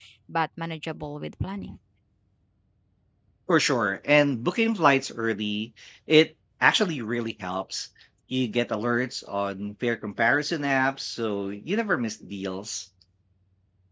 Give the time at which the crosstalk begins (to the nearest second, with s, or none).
none